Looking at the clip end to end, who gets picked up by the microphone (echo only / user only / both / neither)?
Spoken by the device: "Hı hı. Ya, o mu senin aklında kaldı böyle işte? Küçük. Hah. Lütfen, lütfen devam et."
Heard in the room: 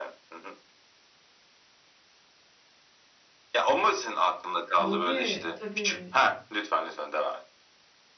both